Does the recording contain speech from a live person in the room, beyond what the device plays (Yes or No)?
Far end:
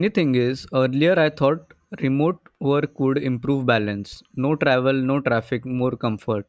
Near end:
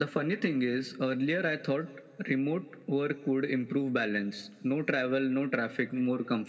No